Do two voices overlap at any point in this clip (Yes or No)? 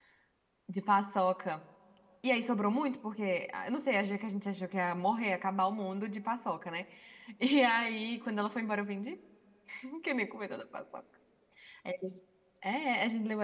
No